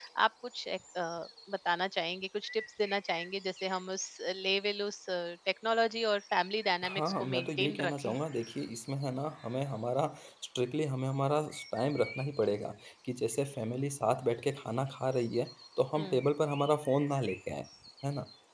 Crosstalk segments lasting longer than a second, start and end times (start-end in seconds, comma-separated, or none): 6.8-8.2